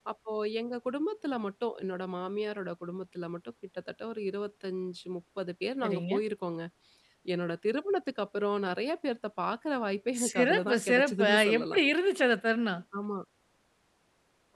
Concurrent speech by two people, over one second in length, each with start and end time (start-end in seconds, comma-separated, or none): 10.3-11.8